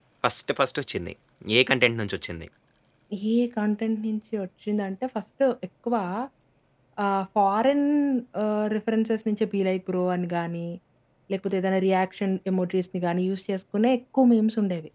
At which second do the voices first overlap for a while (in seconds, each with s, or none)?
none